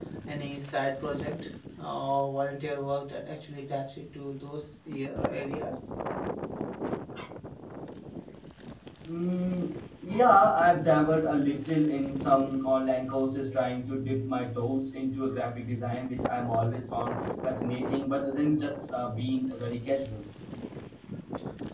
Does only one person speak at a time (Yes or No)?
Yes